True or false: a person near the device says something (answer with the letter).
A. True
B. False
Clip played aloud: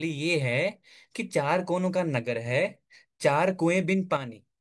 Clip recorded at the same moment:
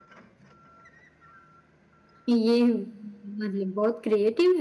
A